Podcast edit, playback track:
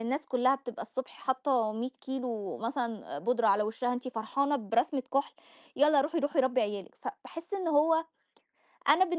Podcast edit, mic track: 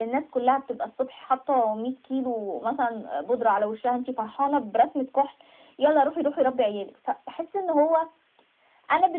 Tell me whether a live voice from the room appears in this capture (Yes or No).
No